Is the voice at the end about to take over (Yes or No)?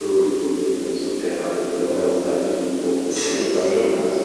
Yes